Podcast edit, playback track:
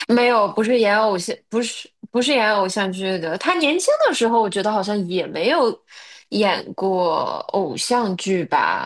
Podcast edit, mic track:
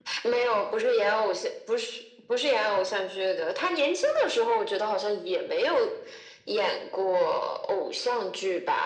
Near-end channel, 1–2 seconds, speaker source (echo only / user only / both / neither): echo only